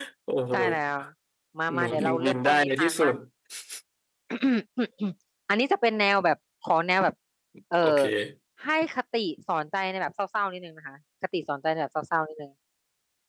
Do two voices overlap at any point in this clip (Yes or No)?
Yes